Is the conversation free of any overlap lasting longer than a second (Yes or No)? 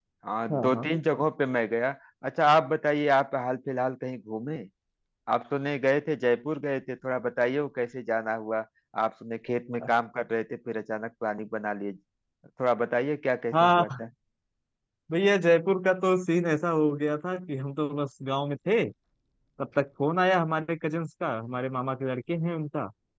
Yes